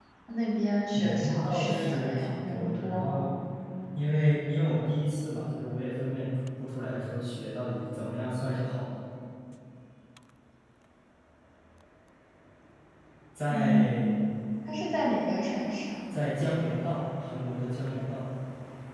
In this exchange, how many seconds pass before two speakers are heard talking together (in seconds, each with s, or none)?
0.9 s